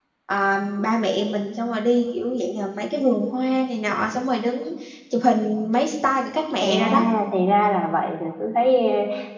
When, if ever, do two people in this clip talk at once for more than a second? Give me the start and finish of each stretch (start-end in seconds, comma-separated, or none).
none